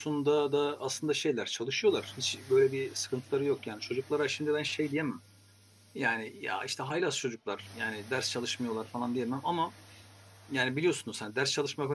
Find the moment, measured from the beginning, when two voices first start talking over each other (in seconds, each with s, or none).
none